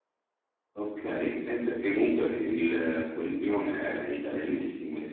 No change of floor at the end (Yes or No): No